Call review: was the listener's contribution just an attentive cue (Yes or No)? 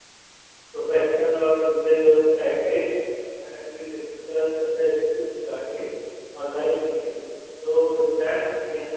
Yes